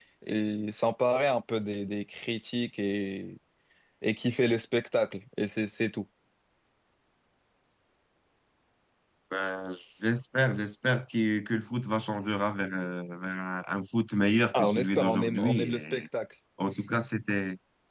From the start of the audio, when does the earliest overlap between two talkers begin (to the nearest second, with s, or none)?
15 s